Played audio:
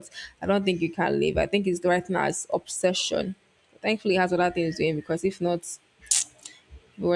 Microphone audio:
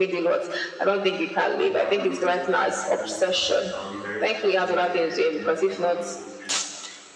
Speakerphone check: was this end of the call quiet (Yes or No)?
No